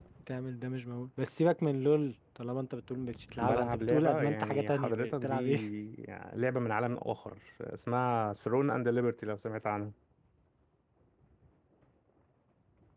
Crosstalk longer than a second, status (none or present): present